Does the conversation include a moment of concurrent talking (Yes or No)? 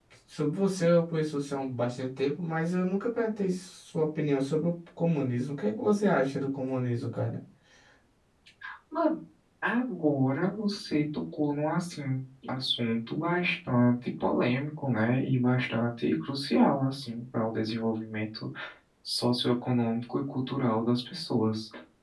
No